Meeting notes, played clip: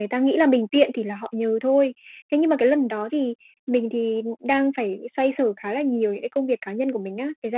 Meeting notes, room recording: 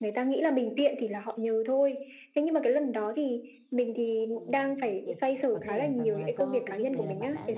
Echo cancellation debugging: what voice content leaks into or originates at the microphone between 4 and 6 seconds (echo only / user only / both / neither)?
both